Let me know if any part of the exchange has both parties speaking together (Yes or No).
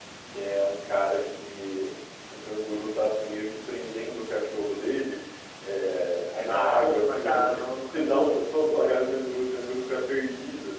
Yes